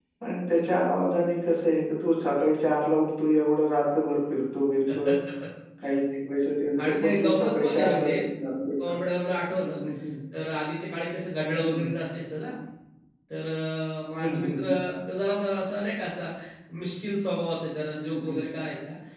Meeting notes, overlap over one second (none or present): present